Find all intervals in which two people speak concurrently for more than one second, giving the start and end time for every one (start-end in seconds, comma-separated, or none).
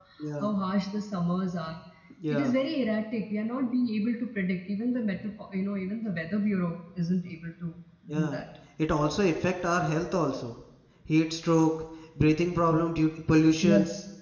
none